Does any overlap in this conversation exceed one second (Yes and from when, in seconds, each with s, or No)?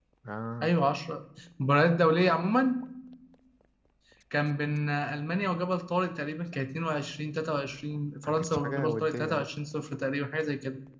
Yes, from 8.2 s